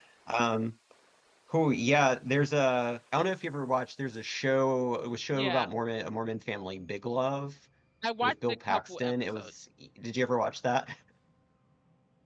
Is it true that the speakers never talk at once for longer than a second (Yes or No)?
No